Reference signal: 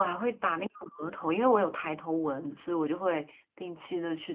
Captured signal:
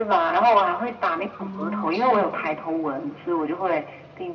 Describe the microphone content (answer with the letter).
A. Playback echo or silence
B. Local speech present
B